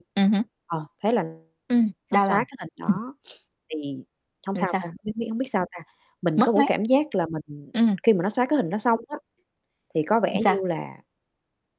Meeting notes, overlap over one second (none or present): none